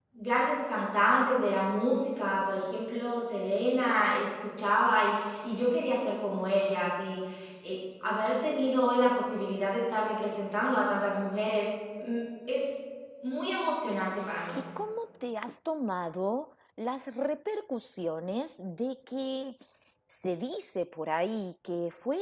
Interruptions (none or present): none